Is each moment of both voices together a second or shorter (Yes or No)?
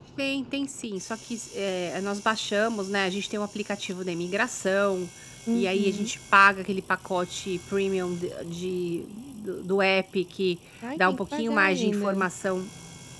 No